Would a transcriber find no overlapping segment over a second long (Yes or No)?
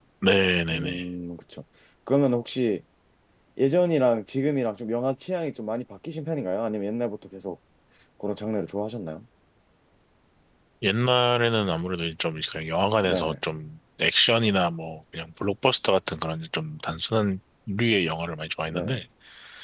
Yes